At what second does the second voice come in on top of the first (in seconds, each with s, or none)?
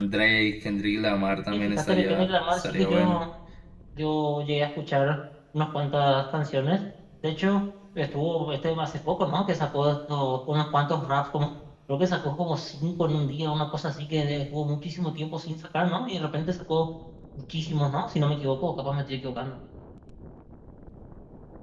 1.5 s